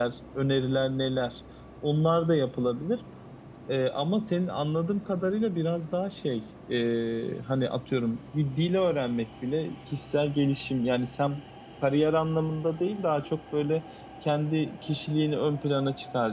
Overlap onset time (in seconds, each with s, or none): none